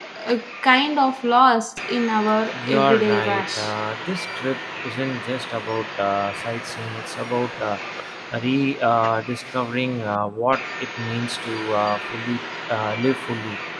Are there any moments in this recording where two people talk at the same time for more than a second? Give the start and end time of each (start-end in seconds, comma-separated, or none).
2.5-3.7